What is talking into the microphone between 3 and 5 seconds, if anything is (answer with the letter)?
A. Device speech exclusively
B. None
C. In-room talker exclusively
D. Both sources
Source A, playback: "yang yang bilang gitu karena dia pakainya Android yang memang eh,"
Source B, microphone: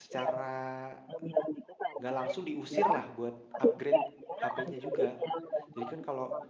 D